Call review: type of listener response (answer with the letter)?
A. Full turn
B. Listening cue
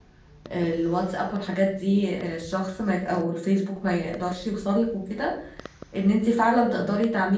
B